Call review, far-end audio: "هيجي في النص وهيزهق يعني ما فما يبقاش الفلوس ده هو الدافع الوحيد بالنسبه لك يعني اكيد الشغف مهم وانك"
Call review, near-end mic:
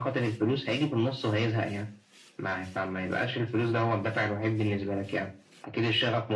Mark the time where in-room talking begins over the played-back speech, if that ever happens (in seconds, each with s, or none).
none